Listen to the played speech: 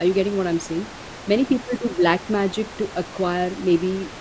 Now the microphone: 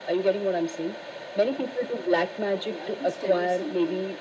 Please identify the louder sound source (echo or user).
echo